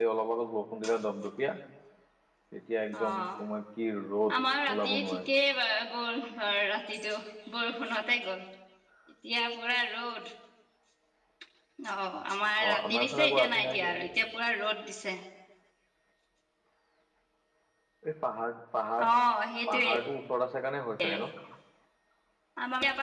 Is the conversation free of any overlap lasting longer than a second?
No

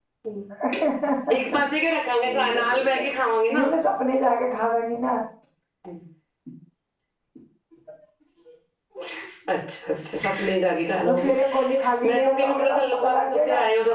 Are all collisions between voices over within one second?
No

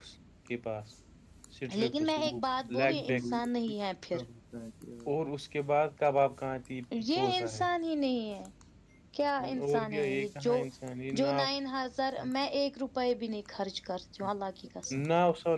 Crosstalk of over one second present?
Yes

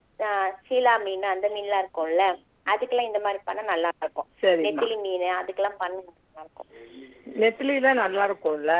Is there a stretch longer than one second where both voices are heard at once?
No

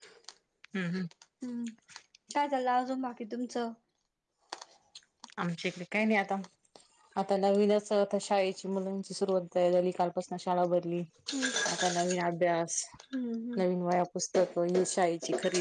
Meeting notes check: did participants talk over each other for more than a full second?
No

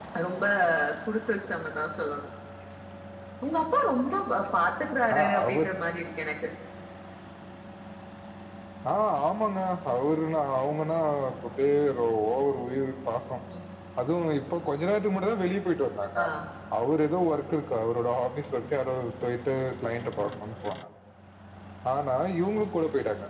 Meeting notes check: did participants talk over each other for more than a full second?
No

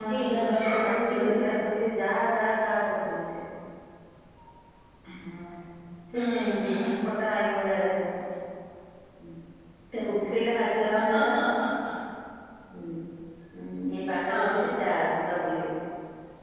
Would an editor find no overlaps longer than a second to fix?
No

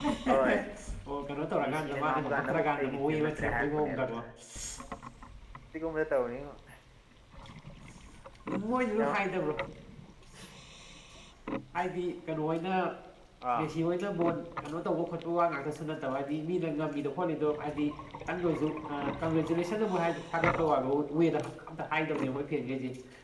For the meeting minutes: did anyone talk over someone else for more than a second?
Yes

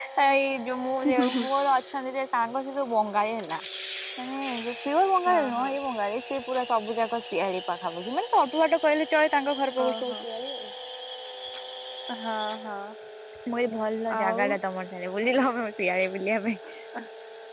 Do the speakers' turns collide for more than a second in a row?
No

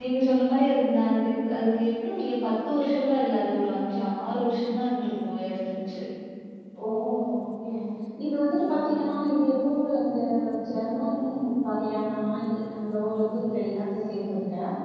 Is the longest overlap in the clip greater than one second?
No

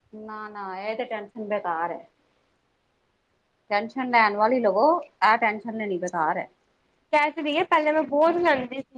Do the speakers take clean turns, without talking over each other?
Yes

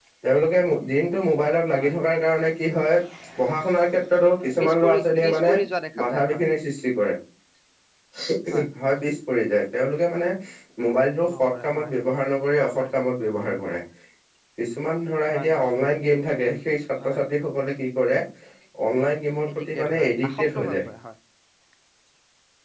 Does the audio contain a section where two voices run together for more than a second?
Yes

